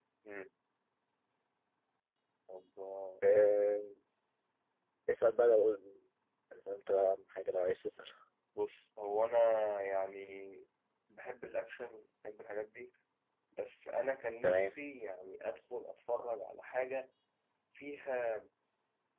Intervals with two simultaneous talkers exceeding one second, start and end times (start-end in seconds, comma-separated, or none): none